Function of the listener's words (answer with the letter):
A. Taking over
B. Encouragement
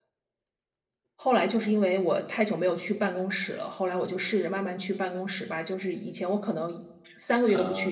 B